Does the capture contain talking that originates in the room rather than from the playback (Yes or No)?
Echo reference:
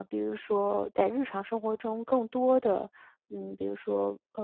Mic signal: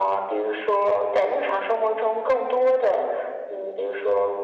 No